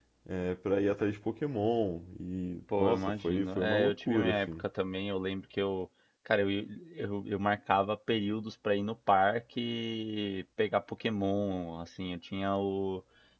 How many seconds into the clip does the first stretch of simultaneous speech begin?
2.7 s

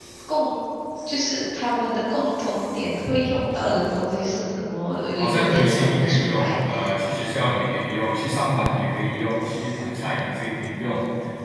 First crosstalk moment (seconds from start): 5.2 s

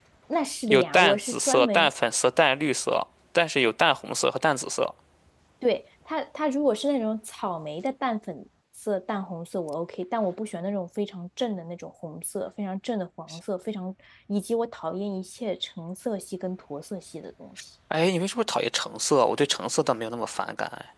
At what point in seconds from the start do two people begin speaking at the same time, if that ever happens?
0.7 s

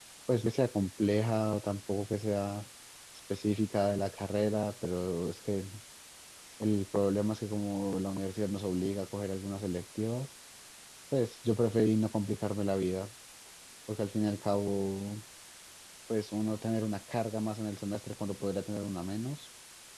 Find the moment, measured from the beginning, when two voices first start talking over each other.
none

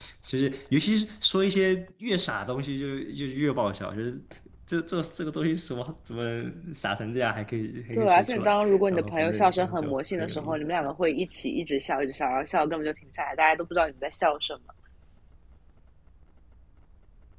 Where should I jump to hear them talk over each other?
7.9 s

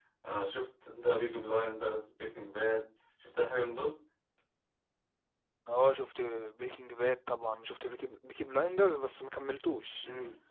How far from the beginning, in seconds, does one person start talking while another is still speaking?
none

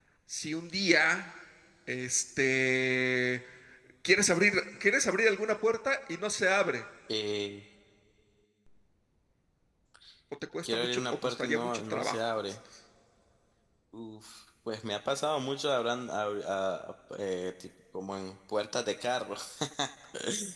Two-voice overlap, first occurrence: 10.6 s

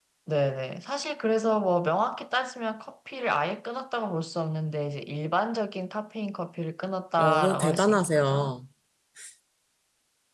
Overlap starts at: 7.2 s

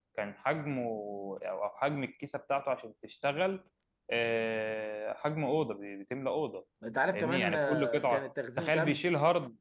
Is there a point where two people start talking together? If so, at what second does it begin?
7.1 s

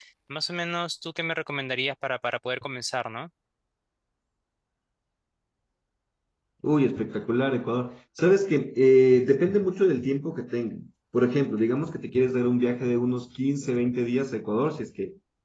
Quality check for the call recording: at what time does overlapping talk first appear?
none

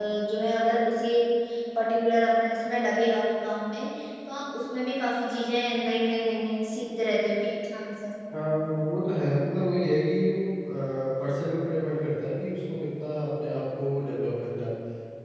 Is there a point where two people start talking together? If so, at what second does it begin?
none

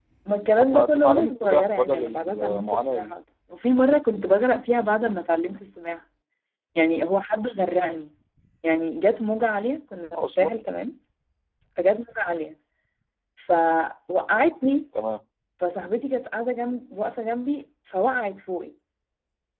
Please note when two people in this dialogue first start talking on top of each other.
0.6 s

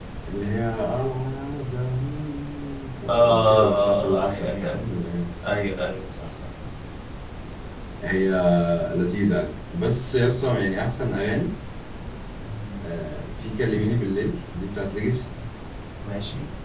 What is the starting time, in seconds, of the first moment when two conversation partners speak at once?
3.1 s

